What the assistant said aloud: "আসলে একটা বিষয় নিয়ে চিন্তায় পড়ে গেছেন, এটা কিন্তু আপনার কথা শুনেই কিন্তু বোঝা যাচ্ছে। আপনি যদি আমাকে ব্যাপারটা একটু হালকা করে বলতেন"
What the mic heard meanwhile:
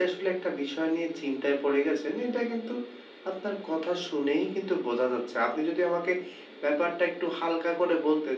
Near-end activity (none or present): none